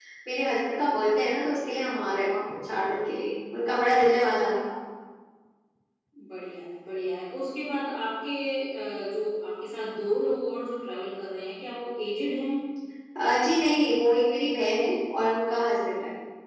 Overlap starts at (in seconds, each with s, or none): none